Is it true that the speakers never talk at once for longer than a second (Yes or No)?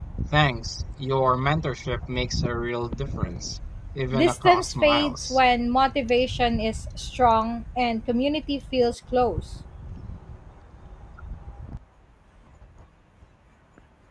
No